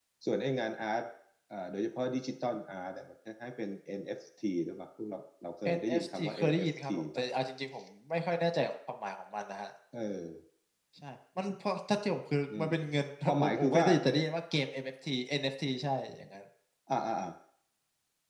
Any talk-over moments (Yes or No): Yes